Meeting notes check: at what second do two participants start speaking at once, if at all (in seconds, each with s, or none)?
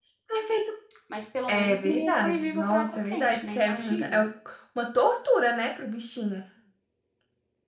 1.5 s